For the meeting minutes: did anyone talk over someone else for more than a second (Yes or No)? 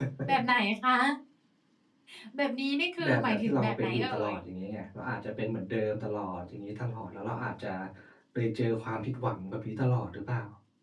Yes